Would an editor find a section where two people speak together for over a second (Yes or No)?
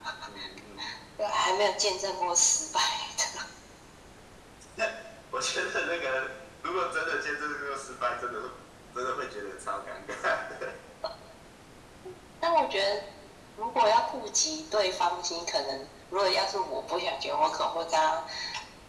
No